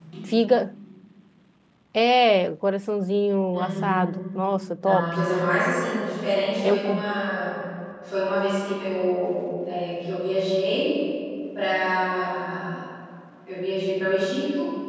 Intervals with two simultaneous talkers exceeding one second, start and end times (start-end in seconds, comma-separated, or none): none